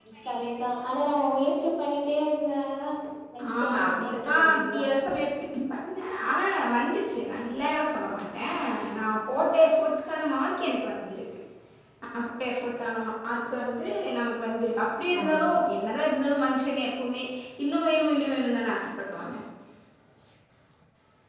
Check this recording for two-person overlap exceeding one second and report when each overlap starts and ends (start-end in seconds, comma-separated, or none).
3.6-4.8